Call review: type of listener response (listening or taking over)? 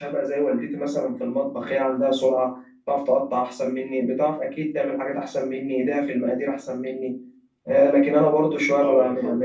listening